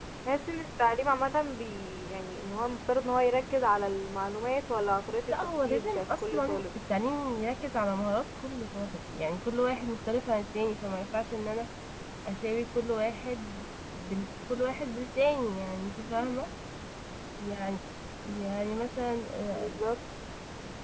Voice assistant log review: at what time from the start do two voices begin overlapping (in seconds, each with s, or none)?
5.3 s